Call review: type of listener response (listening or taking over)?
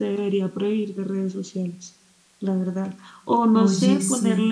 listening